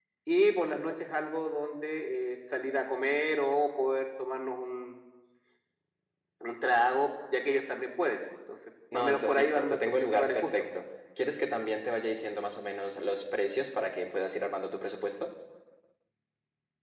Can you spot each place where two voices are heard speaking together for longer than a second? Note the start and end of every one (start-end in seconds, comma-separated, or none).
8.9-10.5